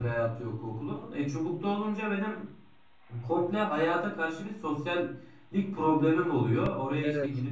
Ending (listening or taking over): listening